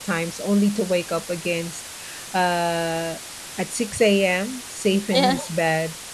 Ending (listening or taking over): listening